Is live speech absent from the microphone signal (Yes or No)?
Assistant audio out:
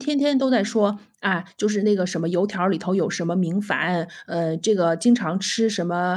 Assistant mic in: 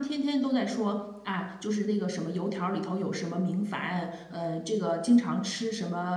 Yes